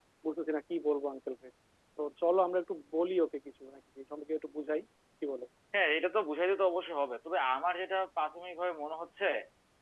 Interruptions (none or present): none